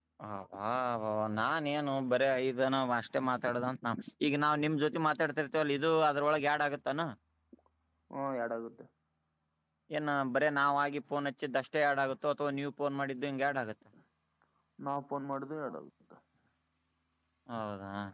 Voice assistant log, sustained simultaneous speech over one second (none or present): none